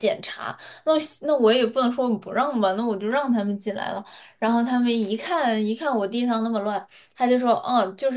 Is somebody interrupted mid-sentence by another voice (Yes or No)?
No